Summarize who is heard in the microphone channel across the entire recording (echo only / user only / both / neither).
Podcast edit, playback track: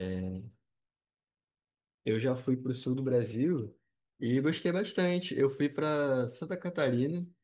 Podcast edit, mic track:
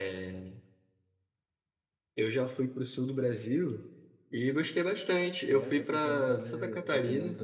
both